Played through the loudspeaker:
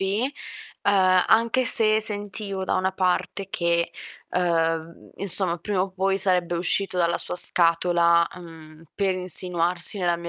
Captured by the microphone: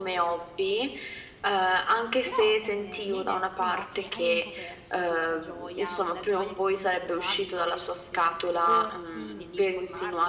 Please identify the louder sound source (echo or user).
echo